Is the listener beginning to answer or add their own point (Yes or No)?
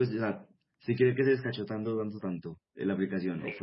Yes